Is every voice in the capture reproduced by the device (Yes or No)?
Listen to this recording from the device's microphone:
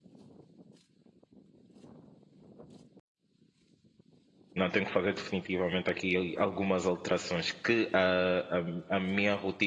No